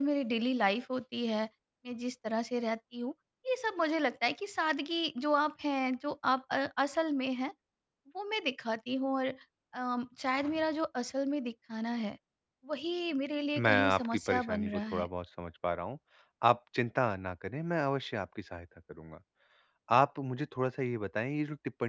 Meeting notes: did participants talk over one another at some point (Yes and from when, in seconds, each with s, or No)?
Yes, from 13.6 s